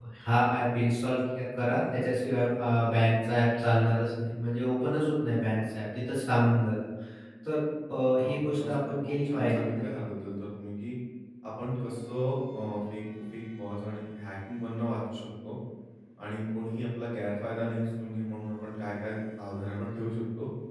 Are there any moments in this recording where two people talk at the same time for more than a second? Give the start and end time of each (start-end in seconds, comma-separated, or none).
8.2-10.0